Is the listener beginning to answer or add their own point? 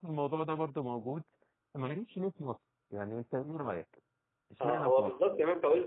Yes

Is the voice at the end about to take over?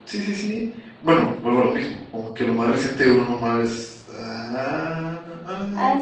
Yes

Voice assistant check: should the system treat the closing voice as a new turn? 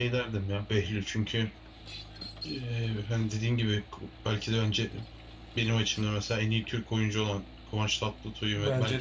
Yes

